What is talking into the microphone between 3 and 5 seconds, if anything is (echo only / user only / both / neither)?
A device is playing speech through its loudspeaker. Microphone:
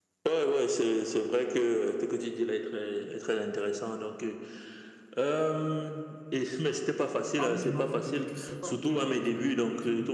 echo only